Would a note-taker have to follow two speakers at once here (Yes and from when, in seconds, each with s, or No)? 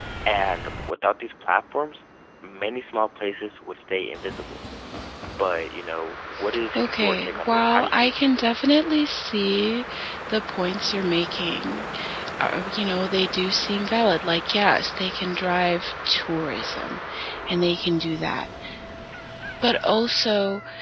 Yes, from 6.7 s